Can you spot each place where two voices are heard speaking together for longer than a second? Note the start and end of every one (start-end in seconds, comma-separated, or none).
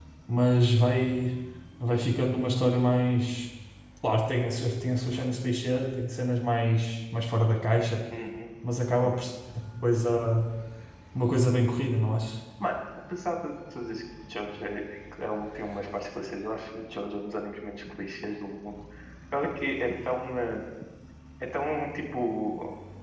none